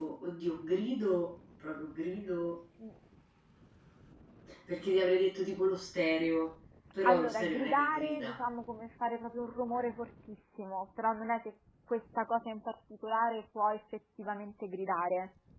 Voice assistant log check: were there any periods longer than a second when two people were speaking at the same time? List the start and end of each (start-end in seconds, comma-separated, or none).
7.0-8.4